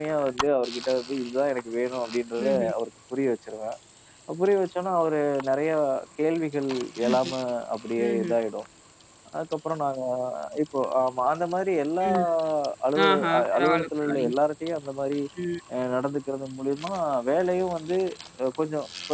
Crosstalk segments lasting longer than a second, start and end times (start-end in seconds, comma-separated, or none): 13.1-14.3